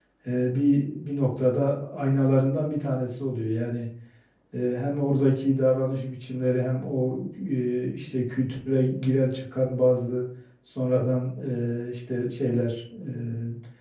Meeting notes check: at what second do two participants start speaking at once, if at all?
none

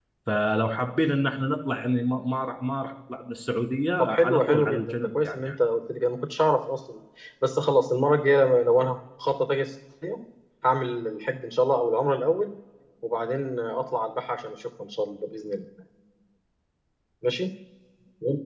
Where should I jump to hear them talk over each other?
4.0 s

